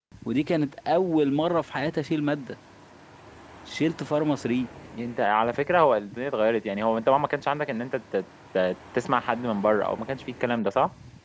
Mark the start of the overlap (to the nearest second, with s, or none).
none